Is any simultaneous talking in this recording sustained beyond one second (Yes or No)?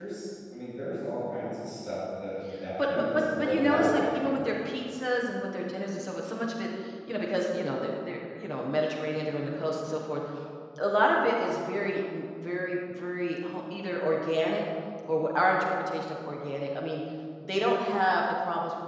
Yes